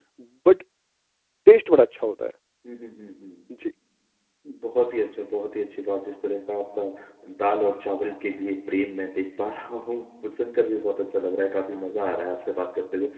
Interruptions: none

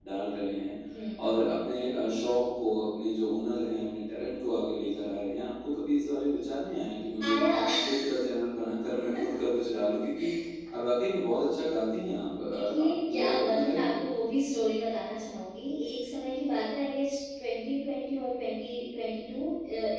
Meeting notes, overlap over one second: present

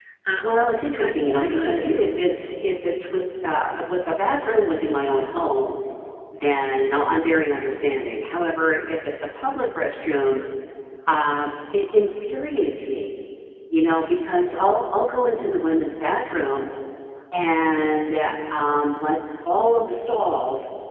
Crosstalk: present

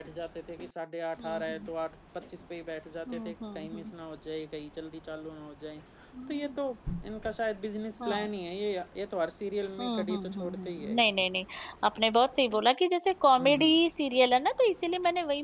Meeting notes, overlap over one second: present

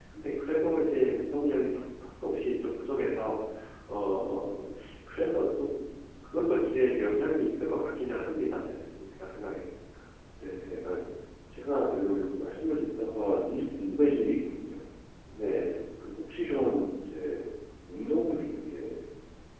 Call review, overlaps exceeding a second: none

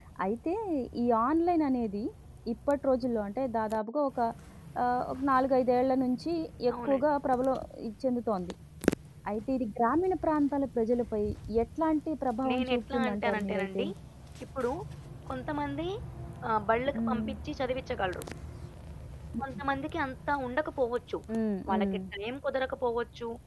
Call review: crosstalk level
present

